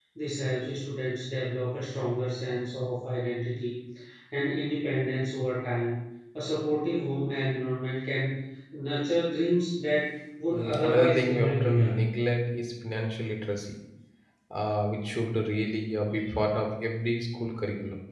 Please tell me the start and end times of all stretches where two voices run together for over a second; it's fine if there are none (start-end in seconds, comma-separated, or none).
10.5-12.1